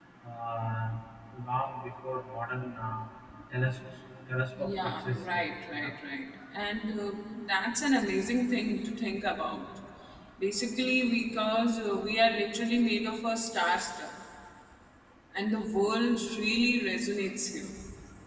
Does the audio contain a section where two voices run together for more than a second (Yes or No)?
Yes